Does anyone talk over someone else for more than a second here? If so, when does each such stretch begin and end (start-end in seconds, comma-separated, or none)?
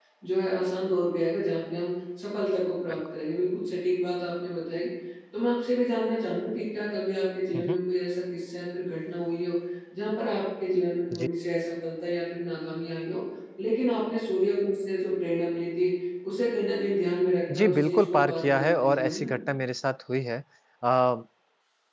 17.6-19.3